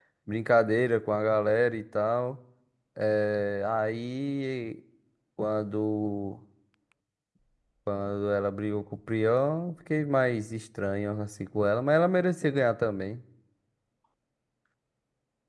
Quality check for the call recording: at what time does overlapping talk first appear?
none

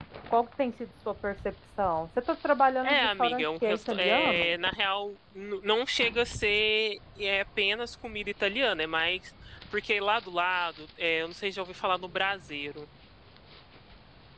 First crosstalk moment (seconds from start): 2.8 s

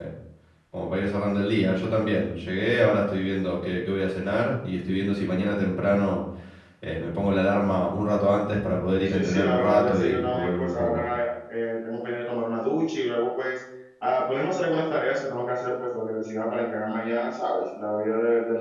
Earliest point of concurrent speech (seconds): 9.1 s

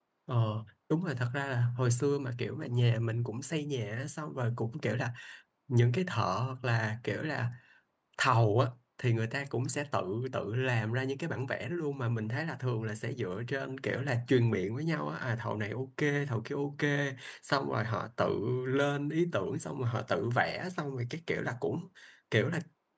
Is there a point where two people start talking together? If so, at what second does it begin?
none

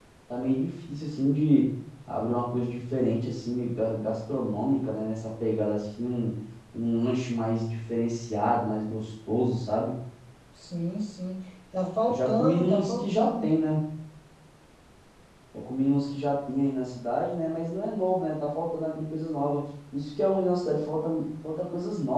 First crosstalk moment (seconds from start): 12.1 s

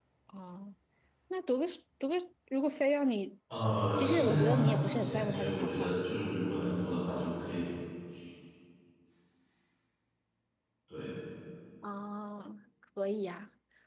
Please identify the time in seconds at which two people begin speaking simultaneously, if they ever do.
3.9 s

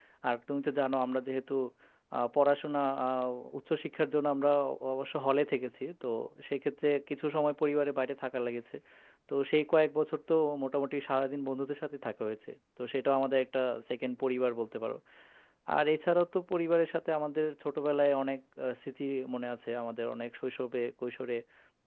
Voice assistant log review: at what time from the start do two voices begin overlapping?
none

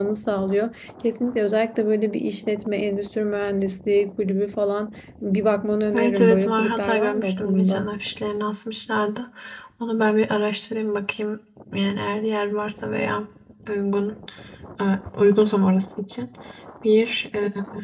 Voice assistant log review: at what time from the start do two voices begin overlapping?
5.9 s

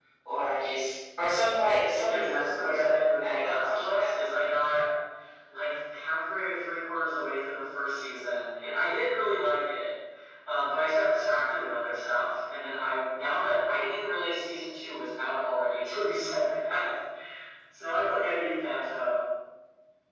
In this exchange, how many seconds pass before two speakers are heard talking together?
1.4 s

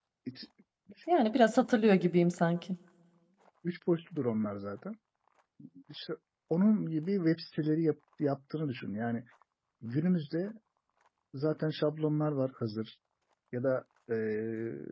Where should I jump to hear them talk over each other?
none

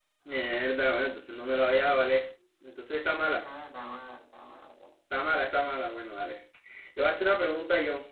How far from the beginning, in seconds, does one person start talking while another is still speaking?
none

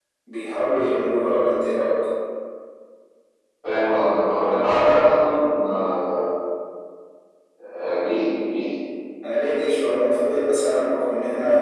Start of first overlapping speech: none

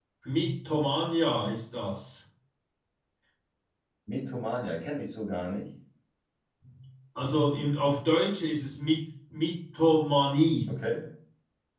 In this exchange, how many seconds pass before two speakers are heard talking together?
none

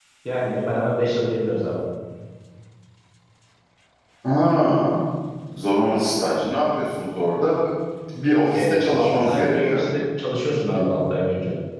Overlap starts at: 8.5 s

